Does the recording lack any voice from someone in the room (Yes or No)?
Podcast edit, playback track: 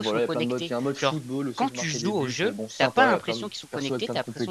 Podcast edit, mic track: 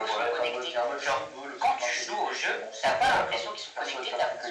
Yes